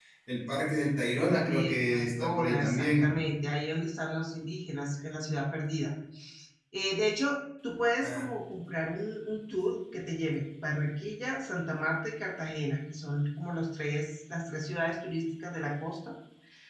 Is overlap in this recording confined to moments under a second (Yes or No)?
No